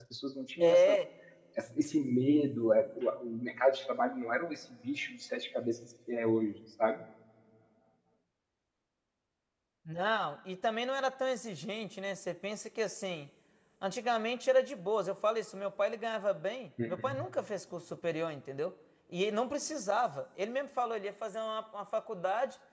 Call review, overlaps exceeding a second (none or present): none